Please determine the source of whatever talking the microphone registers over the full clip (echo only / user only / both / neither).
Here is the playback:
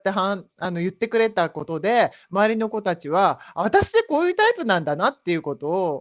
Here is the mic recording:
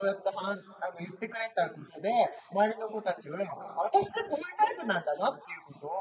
echo only